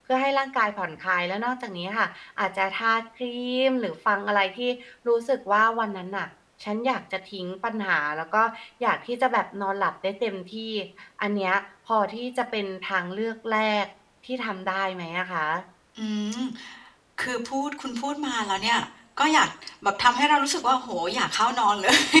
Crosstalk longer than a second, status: none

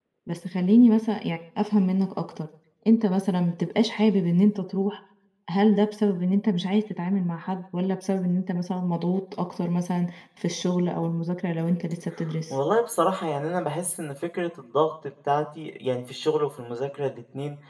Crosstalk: none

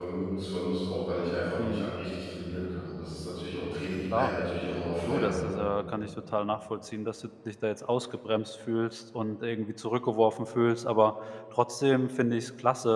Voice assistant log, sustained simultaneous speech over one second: none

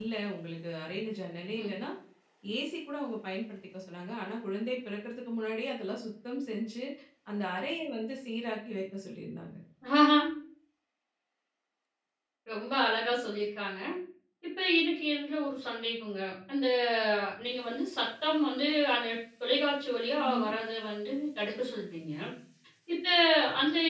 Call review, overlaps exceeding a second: none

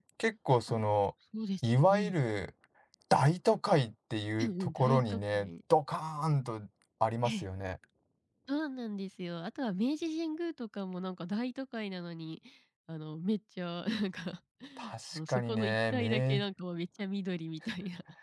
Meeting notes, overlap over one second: present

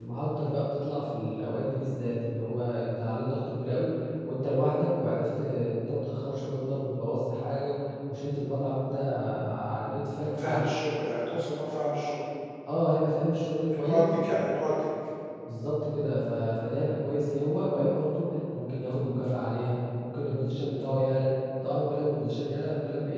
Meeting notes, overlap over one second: none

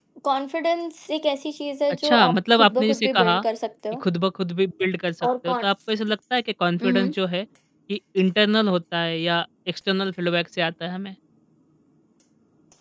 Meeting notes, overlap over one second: present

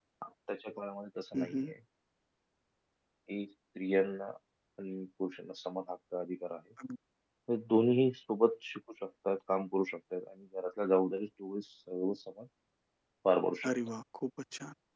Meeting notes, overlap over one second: none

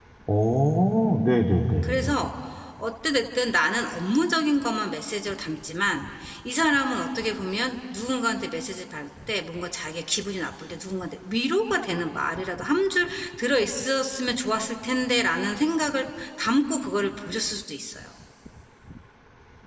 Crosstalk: none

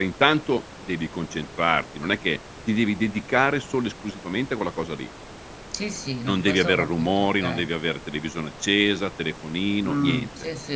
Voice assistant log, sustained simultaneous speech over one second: present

